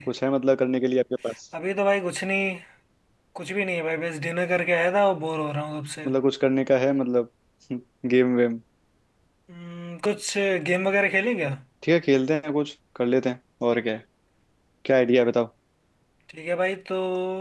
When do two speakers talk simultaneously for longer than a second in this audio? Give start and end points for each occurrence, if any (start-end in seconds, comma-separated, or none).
none